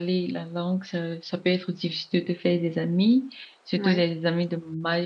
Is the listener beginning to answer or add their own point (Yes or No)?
No